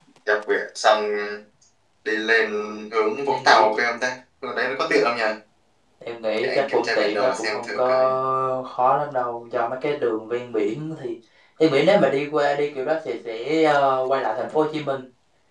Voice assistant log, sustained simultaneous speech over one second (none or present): present